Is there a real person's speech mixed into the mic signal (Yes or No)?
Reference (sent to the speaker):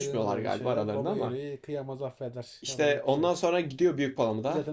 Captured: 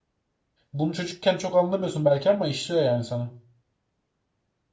Yes